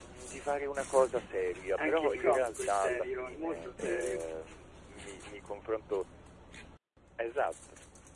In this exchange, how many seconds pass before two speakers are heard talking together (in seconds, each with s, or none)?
1.8 s